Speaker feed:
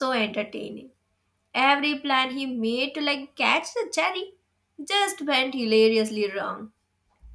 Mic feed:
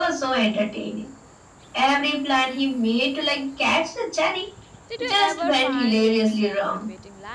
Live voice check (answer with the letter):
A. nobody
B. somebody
B